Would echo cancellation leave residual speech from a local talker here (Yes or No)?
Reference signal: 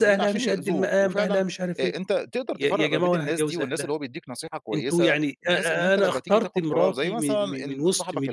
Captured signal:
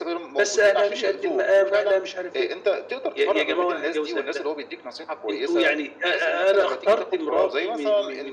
No